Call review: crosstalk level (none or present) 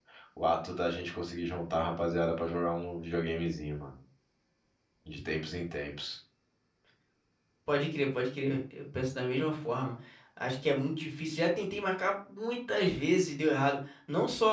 none